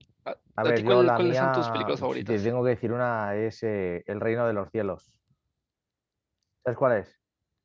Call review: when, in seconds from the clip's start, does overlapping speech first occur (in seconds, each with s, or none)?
0.7 s